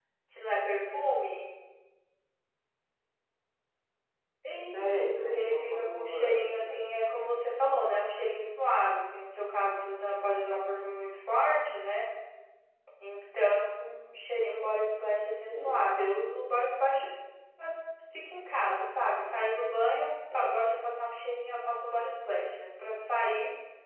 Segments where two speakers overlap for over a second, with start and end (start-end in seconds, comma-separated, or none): 4.7-6.8